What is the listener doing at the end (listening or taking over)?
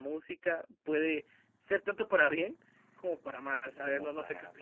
taking over